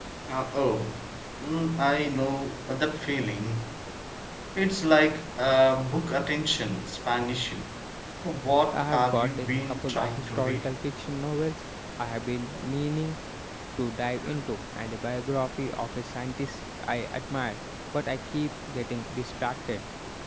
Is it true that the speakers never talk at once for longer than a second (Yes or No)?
No